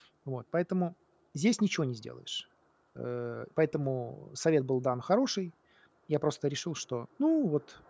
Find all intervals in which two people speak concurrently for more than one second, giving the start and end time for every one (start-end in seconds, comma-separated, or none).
none